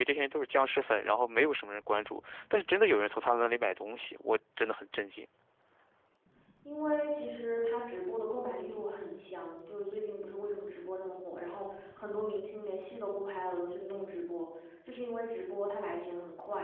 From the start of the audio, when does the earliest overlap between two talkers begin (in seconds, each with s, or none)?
none